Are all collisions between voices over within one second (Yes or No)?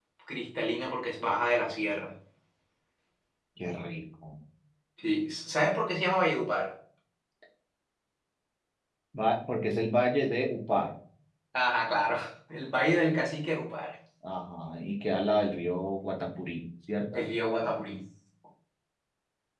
Yes